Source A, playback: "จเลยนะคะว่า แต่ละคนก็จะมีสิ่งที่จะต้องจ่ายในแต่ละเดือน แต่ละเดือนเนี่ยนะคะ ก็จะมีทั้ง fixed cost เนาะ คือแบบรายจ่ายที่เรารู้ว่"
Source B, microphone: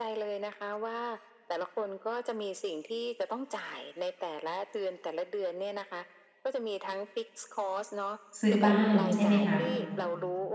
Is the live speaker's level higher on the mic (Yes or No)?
Yes